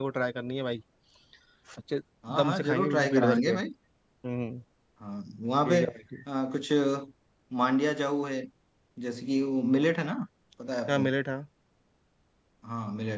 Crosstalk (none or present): present